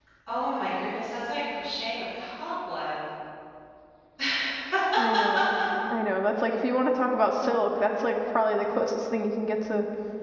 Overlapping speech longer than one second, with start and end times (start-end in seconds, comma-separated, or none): none